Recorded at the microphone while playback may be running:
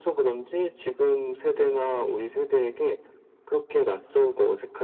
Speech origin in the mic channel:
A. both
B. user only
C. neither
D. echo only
D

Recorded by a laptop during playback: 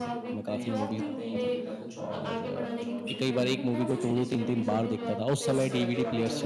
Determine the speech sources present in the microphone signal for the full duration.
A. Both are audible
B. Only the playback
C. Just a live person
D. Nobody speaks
A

